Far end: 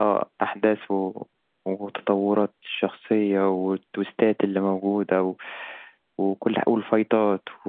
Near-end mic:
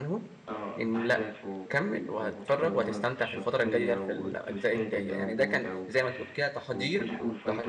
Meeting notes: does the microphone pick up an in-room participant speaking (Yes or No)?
Yes